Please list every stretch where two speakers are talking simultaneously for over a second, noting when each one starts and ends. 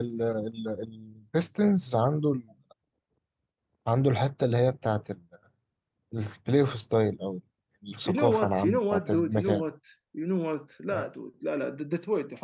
8.1-9.6

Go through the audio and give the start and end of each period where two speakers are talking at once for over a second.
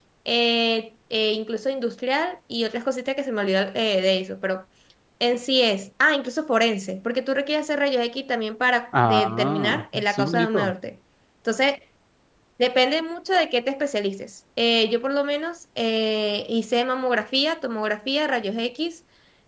9.0-10.7

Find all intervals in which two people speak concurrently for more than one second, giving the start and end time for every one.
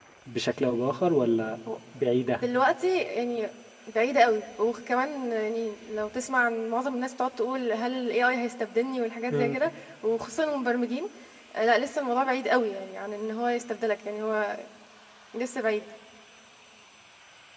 none

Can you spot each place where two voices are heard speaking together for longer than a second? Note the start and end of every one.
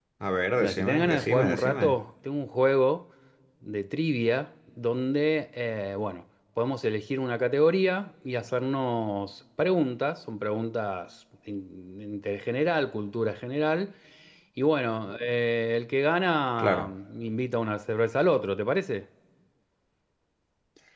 0.6-1.9

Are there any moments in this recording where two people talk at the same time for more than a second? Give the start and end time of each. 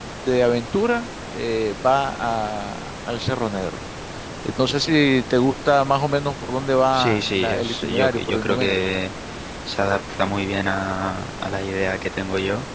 6.9-8.8

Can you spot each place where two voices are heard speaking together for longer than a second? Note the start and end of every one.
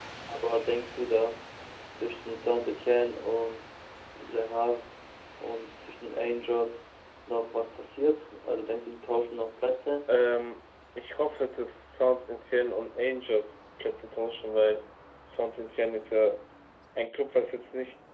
none

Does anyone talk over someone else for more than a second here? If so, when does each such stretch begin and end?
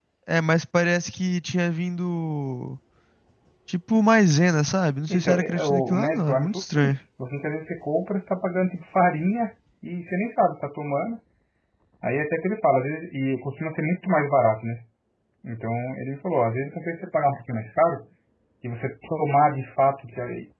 5.1-7.0

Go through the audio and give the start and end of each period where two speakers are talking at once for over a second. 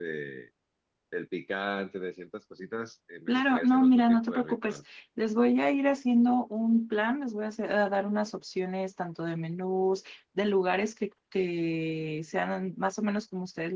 3.3-4.8

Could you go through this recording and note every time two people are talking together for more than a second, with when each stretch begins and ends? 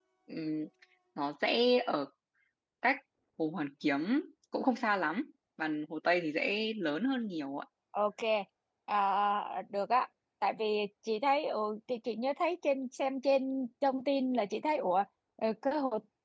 none

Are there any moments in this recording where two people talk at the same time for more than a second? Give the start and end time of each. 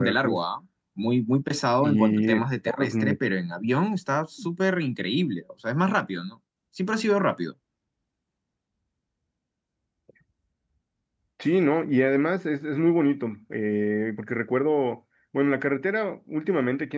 1.8-3.2

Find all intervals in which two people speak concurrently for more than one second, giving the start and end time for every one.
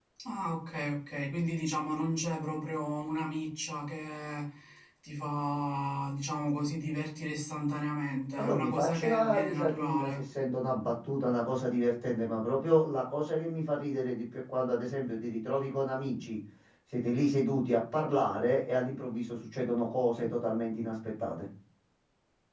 8.4-10.2

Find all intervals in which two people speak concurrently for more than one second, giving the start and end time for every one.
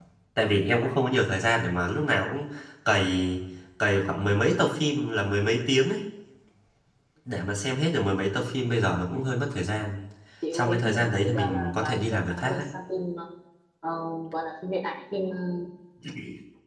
10.5-12.6

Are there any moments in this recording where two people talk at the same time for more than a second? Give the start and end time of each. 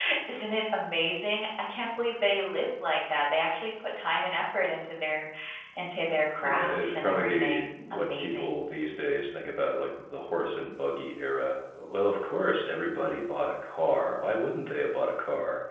6.4-8.6

